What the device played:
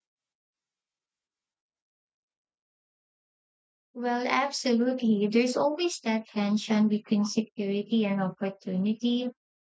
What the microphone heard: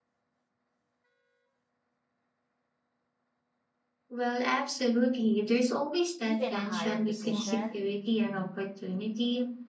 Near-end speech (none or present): present